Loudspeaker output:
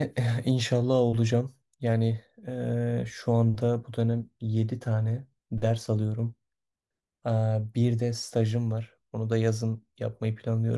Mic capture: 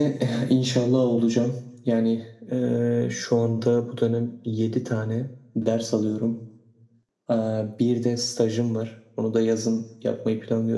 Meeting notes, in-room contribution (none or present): none